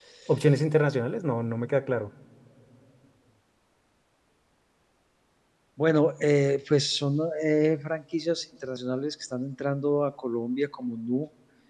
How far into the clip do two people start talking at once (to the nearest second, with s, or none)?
none